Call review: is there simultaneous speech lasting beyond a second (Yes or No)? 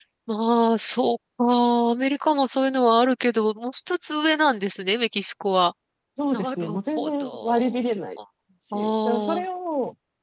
Yes